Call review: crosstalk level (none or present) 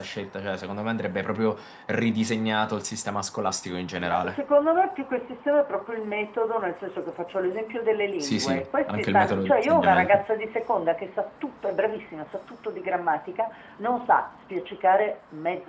present